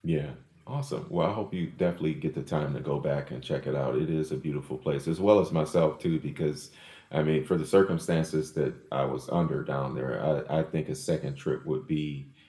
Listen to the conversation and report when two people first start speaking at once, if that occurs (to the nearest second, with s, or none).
none